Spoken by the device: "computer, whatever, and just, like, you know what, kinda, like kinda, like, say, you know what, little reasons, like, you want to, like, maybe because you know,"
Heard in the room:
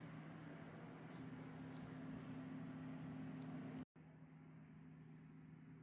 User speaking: No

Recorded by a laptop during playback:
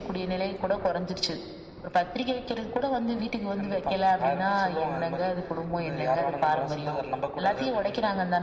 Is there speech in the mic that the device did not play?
No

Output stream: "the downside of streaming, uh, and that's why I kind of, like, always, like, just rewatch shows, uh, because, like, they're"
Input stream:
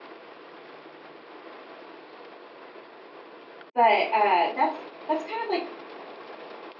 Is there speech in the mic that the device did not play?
Yes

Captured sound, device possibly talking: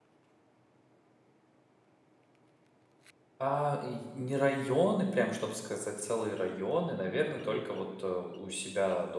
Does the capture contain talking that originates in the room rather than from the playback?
Yes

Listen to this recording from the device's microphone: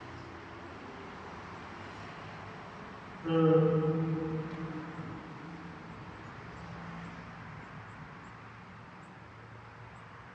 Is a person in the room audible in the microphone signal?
Yes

